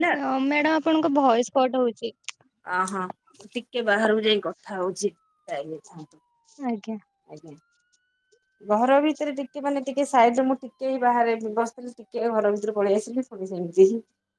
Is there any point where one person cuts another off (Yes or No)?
No